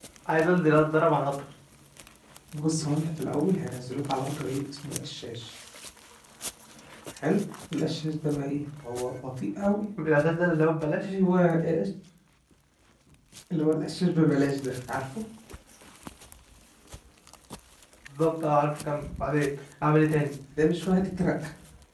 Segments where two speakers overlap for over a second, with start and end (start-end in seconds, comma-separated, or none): none